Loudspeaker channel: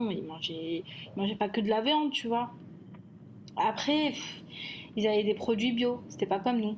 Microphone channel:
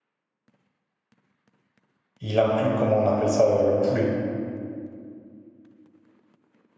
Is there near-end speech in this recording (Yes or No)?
Yes